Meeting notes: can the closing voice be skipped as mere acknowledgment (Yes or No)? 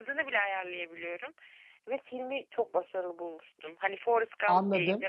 No